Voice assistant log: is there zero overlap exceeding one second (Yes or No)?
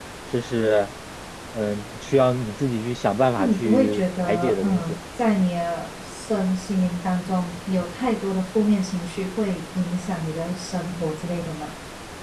No